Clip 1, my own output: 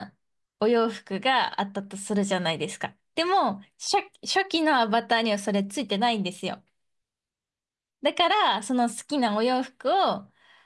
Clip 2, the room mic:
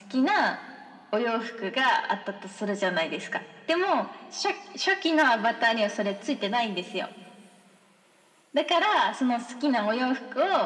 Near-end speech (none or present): none